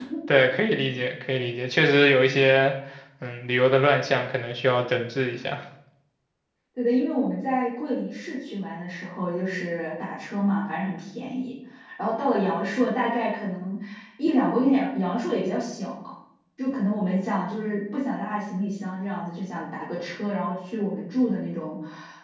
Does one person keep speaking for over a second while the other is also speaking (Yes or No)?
No